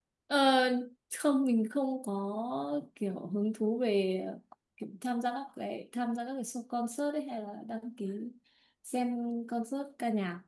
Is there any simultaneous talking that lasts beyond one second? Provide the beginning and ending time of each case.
none

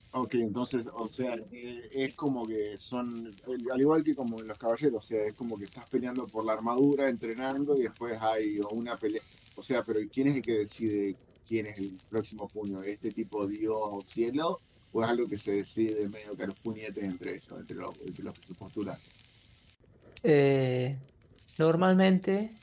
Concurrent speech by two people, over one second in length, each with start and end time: none

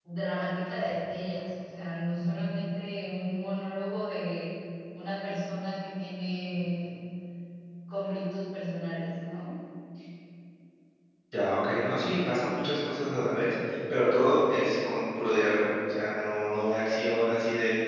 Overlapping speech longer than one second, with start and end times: none

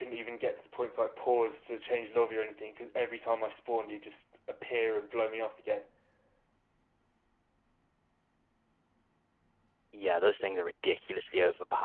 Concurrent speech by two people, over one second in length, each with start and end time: none

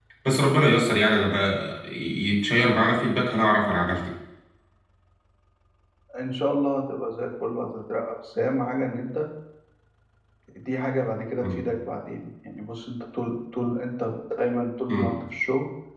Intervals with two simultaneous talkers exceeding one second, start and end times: none

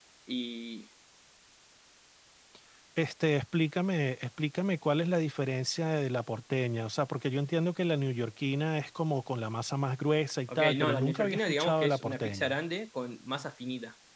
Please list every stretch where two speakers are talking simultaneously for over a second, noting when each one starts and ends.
10.5-12.6

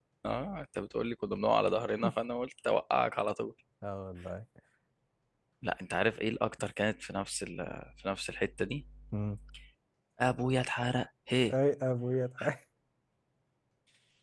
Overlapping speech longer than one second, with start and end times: none

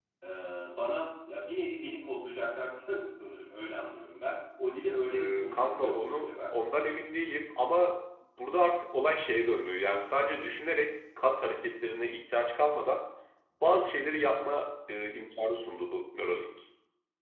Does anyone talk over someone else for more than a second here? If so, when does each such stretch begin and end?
5.1-6.3

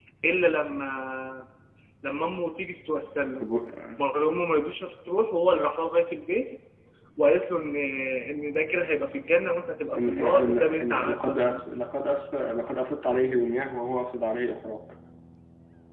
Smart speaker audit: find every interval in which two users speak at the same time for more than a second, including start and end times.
9.9-11.6

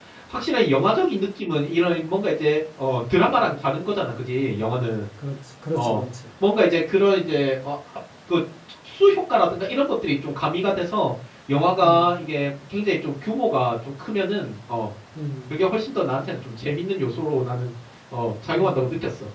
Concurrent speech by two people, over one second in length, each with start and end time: none

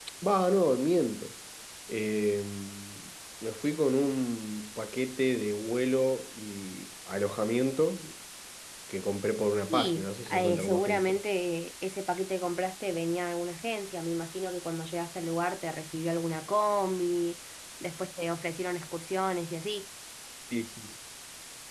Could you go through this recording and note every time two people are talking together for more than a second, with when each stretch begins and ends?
9.7-11.2

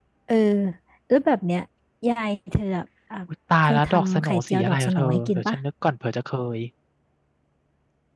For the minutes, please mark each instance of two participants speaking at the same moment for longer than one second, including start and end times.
3.6-5.6

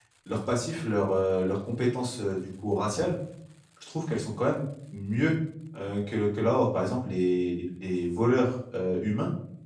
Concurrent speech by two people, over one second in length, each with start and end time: none

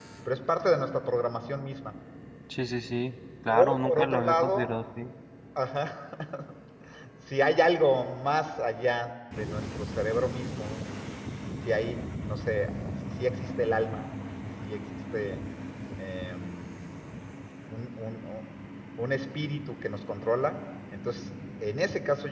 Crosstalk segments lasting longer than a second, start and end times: 3.5-4.7

